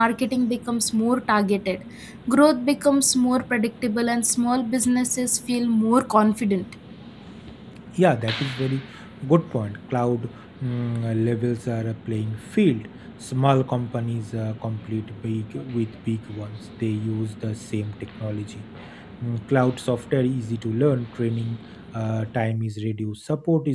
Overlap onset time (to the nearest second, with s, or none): none